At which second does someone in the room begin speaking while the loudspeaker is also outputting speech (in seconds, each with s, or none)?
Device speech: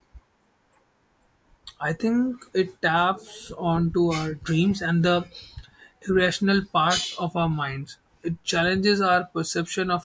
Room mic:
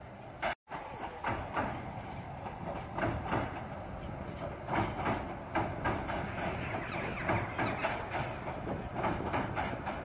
none